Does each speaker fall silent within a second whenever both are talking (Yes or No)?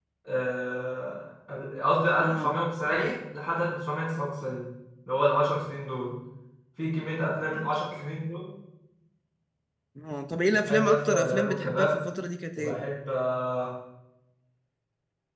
No